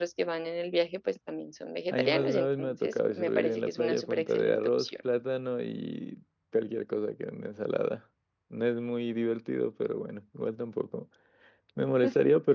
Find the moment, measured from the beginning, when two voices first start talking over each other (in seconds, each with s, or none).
1.9 s